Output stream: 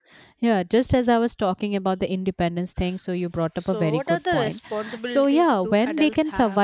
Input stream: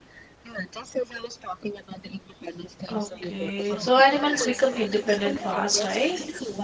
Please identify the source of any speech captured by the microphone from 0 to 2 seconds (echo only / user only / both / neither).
echo only